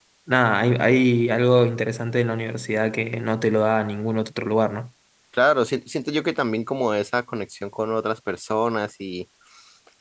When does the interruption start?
none

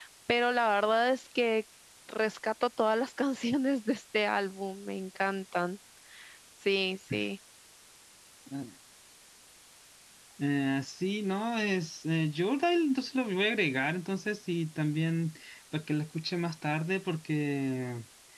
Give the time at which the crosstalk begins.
none

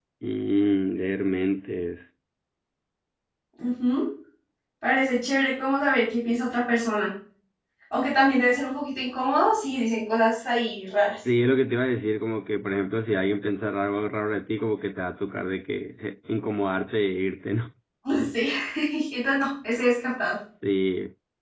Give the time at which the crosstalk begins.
none

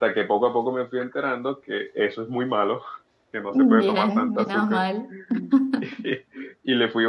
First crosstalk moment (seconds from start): 4 s

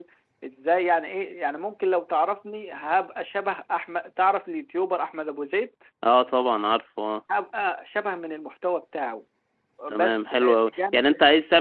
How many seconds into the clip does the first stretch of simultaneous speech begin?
10 s

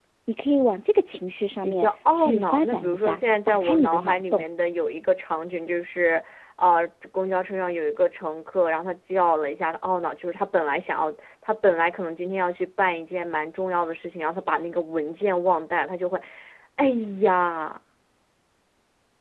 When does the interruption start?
2 s

